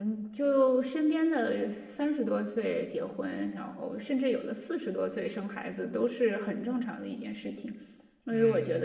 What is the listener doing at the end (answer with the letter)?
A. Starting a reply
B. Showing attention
B